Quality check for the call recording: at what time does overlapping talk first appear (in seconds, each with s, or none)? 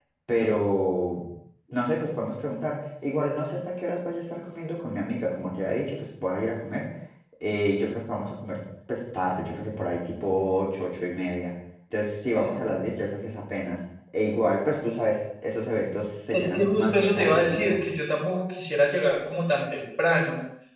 16.3 s